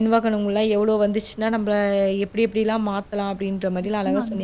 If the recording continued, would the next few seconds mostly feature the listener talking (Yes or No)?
Yes